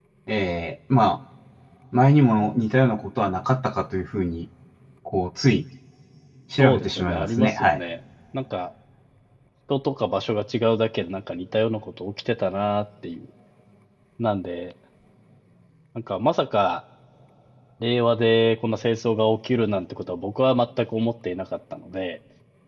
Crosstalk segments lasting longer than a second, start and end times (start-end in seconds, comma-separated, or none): 6.6-7.8